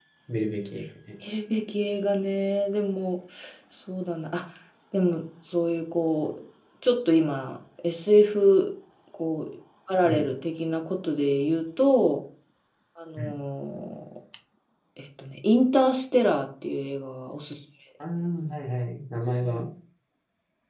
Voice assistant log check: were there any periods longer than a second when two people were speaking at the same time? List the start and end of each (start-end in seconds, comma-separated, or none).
none